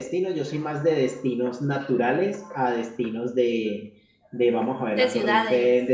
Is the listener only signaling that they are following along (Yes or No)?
Yes